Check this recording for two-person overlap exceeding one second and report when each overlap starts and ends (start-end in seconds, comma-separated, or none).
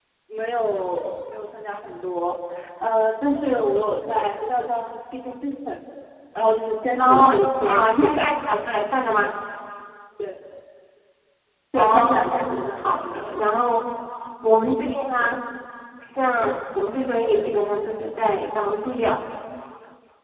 7.0-8.6, 11.7-13.2